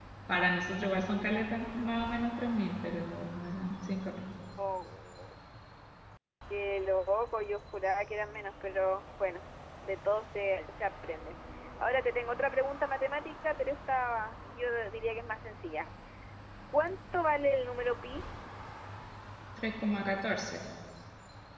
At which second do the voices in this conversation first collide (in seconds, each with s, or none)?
none